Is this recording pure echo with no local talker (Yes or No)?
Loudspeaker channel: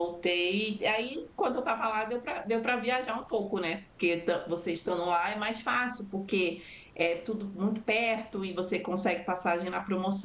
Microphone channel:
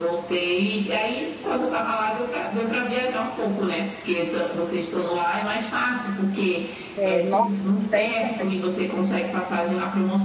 No